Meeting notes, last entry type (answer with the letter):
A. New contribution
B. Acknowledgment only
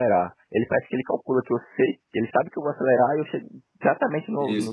A